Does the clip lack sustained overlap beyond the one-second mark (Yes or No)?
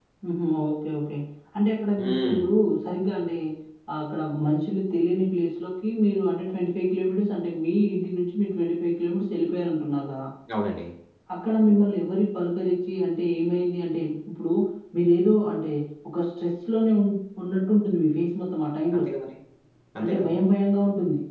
Yes